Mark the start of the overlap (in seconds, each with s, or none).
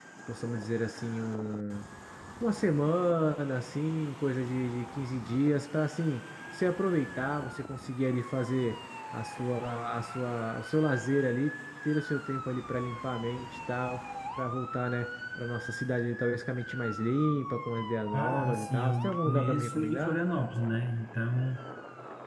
18.1 s